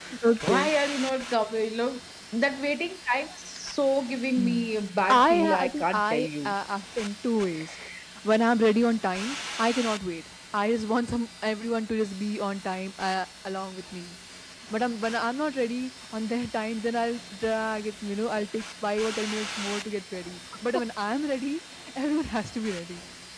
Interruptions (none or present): present